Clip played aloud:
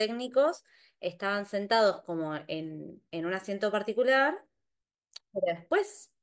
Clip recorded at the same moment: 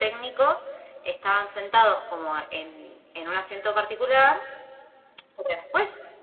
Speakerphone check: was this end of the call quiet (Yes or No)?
Yes